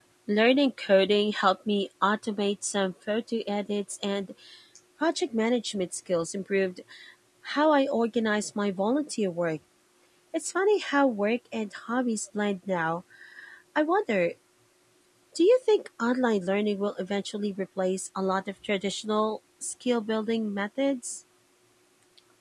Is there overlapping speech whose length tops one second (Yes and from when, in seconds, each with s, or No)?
No